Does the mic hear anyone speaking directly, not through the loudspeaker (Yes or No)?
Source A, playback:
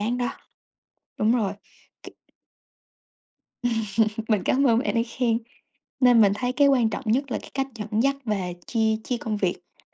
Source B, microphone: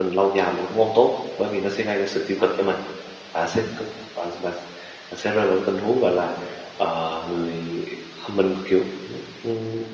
Yes